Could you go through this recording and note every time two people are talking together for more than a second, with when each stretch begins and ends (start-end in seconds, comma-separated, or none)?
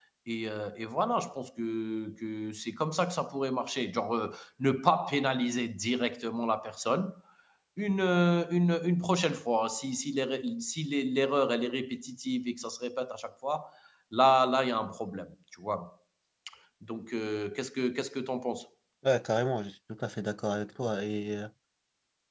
none